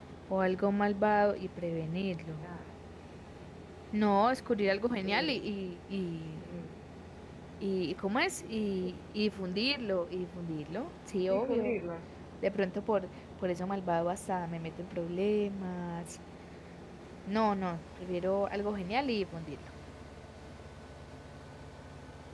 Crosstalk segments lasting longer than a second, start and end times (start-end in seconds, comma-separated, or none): none